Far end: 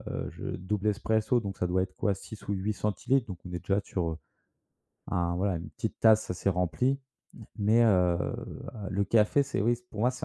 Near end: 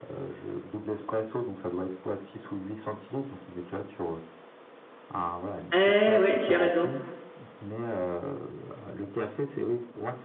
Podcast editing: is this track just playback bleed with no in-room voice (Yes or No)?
No